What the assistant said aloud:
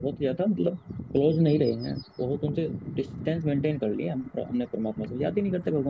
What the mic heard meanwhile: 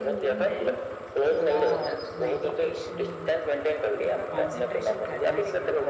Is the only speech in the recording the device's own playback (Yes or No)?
No